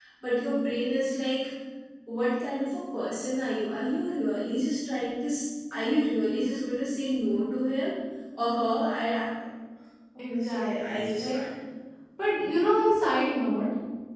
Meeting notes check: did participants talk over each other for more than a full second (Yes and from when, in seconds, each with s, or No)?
Yes, from 10.2 s